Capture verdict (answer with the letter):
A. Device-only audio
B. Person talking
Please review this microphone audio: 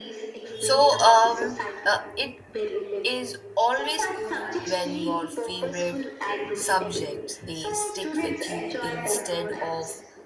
B